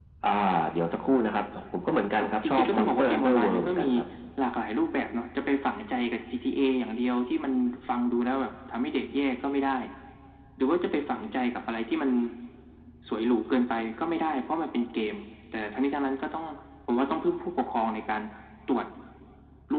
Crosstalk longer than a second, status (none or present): present